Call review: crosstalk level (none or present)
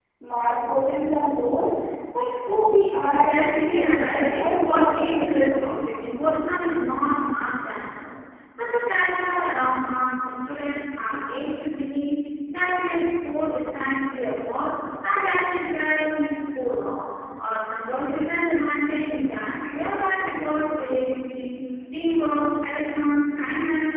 present